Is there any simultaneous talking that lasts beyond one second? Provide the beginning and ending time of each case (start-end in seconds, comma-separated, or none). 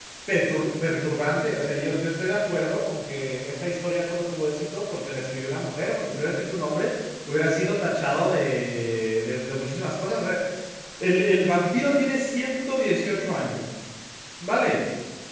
none